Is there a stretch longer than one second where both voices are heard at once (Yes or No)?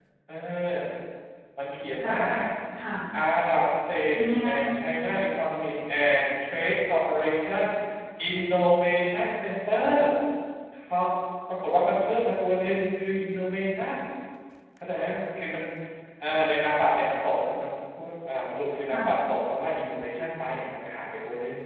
No